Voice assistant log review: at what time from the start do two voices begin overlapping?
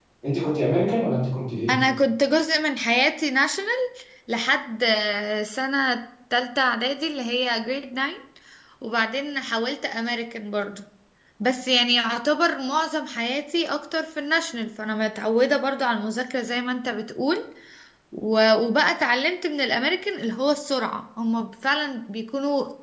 none

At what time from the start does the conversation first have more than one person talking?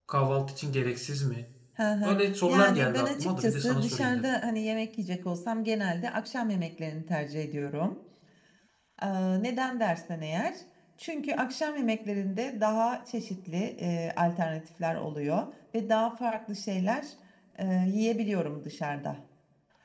2 s

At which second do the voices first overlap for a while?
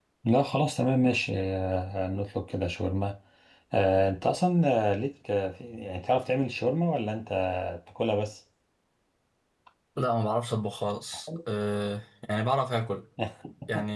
none

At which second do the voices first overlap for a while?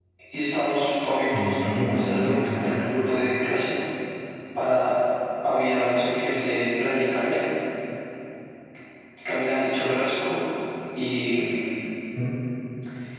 1 s

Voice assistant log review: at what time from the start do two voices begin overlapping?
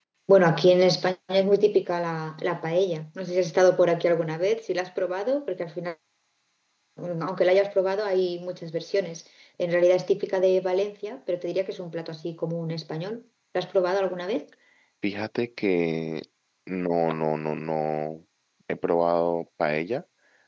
none

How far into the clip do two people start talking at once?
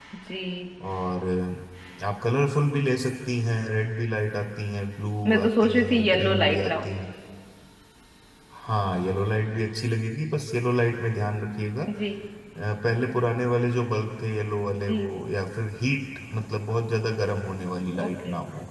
5 s

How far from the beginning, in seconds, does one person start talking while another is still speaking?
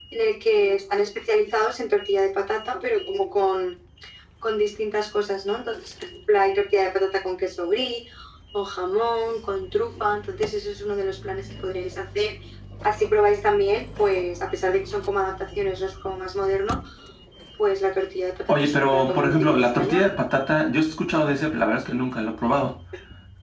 18 s

